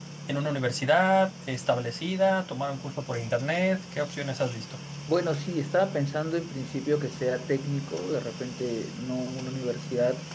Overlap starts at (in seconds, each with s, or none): none